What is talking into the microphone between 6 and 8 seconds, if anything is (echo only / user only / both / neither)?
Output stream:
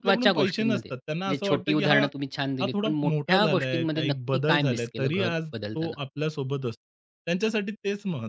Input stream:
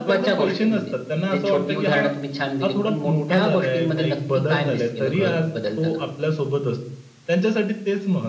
echo only